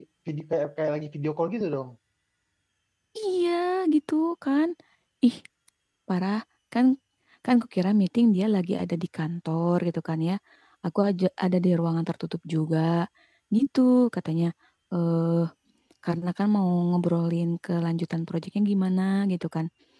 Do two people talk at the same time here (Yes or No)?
No